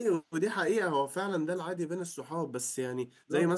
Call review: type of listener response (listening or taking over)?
listening